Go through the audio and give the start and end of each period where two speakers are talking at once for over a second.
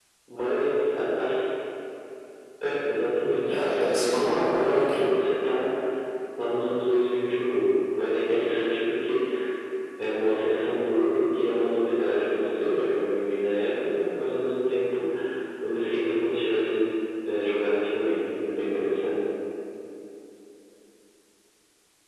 3.5-5.1

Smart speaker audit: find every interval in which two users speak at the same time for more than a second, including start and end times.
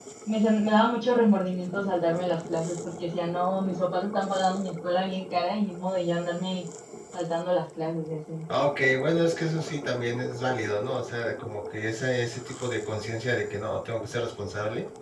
none

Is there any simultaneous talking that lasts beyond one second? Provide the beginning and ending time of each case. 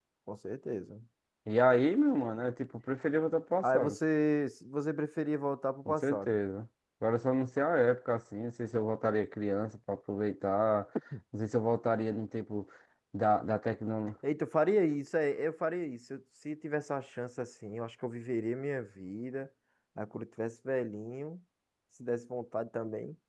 none

